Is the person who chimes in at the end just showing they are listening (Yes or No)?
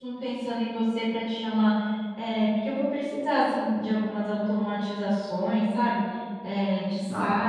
Yes